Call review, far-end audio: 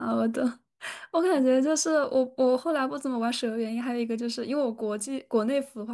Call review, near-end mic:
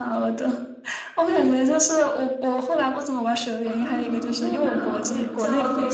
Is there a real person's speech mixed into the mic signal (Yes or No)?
Yes